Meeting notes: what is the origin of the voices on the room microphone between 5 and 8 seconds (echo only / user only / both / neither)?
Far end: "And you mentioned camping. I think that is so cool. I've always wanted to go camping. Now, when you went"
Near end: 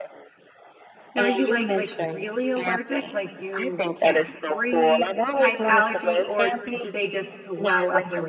both